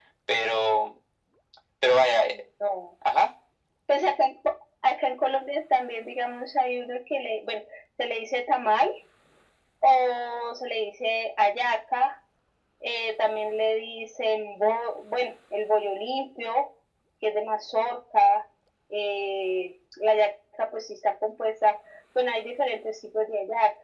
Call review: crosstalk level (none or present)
none